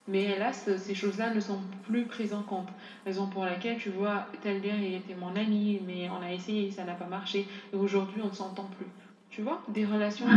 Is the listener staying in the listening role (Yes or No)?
Yes